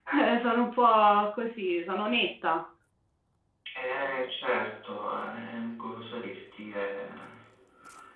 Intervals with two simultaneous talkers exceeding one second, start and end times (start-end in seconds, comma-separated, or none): none